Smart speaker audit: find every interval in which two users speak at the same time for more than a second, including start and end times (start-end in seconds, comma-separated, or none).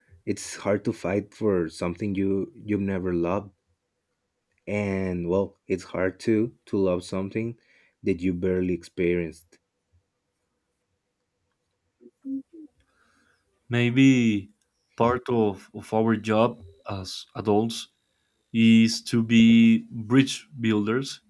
none